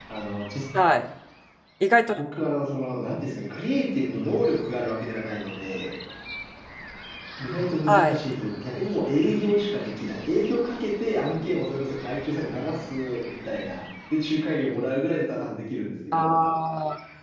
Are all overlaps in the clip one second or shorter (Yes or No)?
Yes